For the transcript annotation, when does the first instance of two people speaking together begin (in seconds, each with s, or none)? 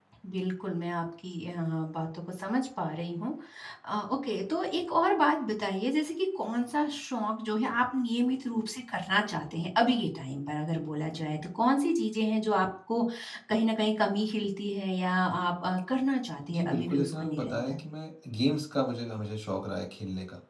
16.5 s